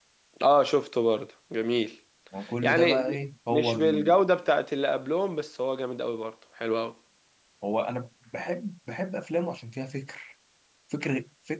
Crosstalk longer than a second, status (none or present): present